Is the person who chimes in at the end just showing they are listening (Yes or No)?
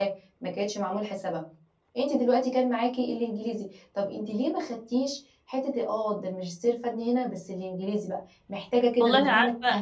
No